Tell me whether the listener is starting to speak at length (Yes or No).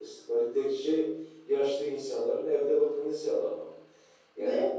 No